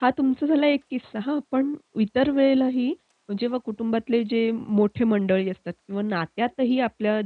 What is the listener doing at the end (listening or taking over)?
listening